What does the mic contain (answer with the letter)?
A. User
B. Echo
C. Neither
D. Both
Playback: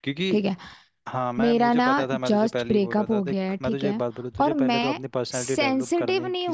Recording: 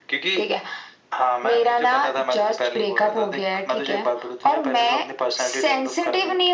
B